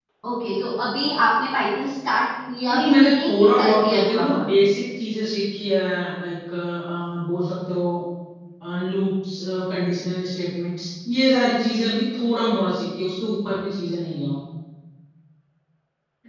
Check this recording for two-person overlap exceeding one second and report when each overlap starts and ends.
2.7-4.4

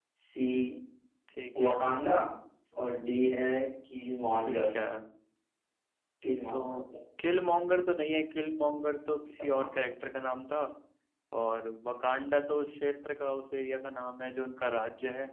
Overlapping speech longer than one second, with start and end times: none

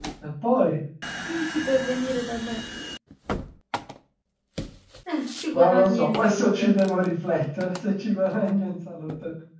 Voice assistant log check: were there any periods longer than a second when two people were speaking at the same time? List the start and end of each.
5.5-6.8

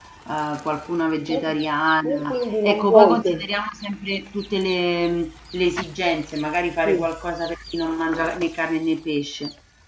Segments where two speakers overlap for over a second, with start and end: 2.0-3.5

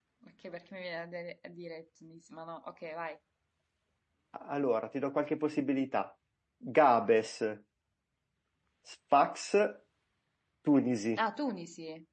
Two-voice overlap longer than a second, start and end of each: none

